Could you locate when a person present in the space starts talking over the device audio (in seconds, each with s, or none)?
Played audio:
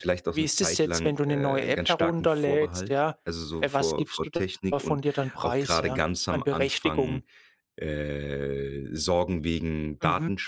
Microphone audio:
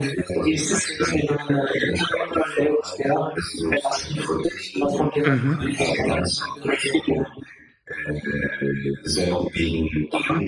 5.2 s